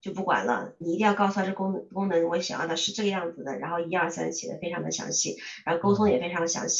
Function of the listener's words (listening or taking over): listening